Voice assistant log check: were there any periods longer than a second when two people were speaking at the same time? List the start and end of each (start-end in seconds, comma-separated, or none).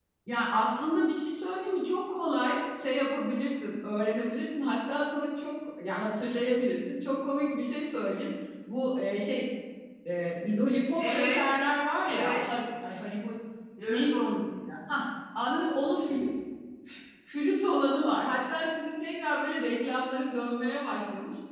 none